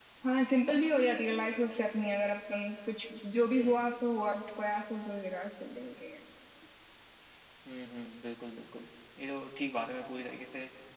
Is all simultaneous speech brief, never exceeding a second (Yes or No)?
Yes